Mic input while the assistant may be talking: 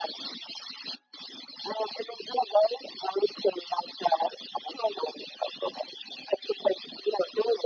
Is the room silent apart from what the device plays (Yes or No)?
Yes